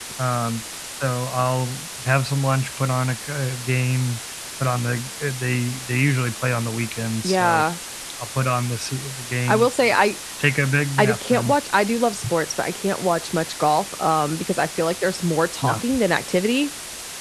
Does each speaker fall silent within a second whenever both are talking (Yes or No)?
Yes